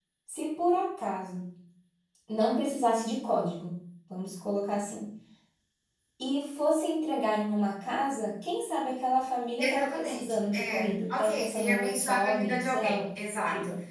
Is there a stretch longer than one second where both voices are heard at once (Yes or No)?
Yes